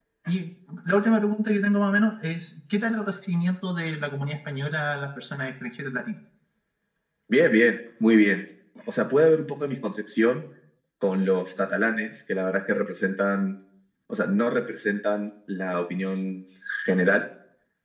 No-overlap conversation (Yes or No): Yes